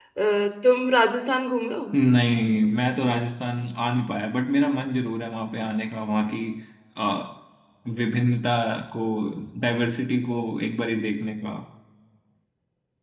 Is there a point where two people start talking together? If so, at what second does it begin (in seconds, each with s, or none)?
none